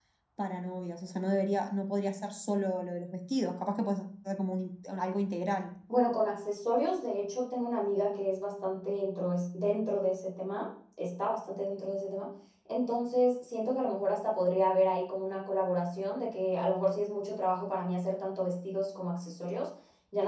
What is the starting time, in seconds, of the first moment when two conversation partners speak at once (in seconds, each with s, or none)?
none